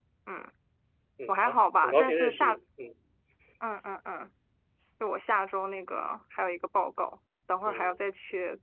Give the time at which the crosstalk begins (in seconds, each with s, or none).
1.3 s